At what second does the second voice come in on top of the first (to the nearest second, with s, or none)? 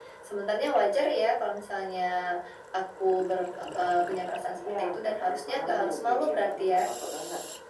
5 s